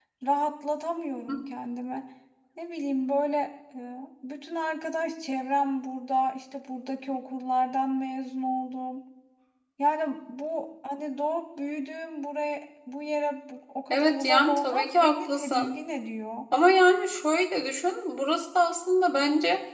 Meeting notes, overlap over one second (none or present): present